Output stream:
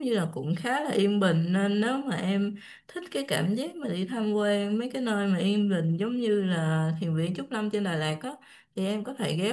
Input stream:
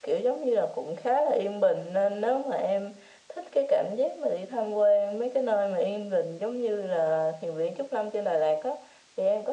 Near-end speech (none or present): none